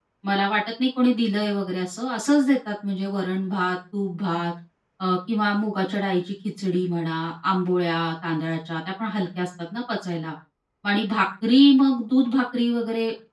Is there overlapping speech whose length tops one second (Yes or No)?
No